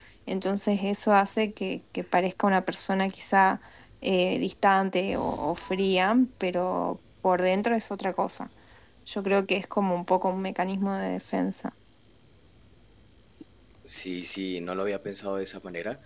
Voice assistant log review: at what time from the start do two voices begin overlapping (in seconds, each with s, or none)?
none